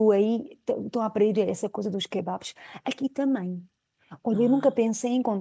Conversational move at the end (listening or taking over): listening